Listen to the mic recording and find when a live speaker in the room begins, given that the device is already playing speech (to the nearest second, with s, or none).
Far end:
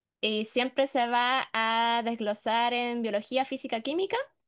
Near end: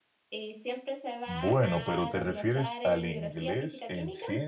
1 s